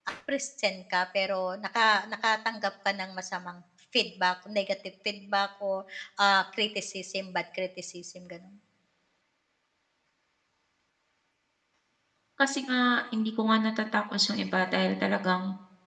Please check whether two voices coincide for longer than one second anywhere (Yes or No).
No